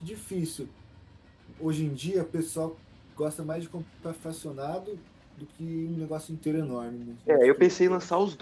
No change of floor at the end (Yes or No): No